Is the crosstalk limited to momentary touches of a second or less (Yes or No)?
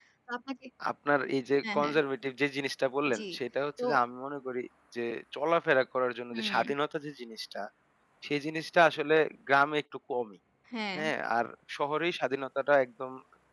Yes